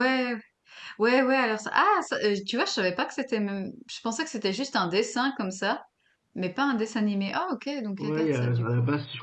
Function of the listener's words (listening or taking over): taking over